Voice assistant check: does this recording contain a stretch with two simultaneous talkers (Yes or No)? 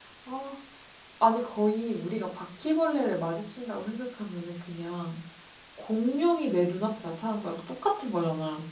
No